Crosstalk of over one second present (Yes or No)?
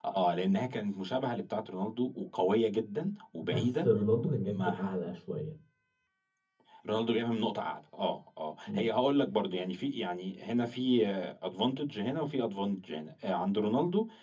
No